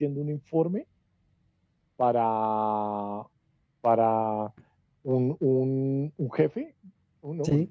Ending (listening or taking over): listening